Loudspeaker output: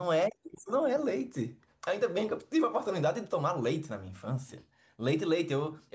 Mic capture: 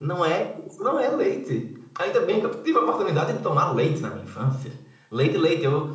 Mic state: echo only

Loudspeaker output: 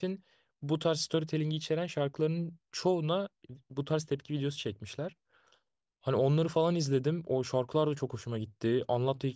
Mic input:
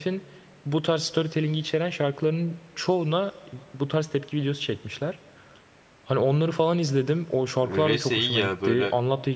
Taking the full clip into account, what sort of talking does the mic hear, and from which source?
both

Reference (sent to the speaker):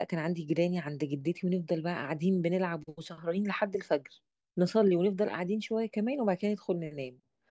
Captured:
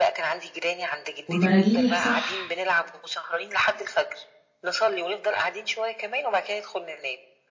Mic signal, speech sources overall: both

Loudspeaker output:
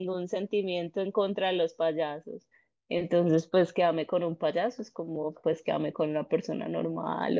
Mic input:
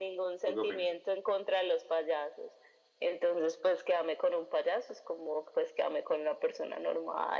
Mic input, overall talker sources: both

